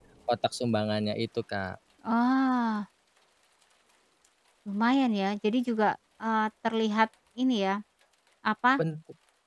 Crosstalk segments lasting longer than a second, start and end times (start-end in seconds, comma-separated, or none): none